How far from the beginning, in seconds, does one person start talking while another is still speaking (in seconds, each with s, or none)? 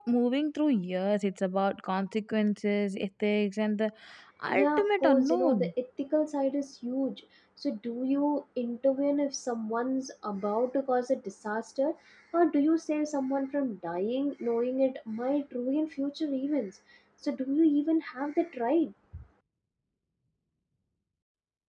4.5 s